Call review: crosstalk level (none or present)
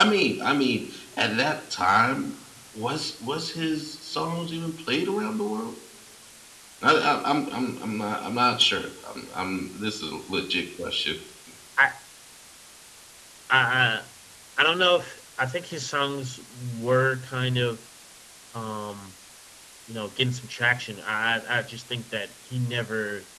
none